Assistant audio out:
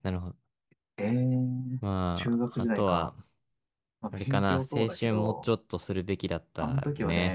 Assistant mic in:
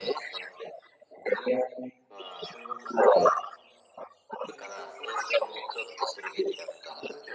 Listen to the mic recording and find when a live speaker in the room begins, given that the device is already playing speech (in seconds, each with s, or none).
none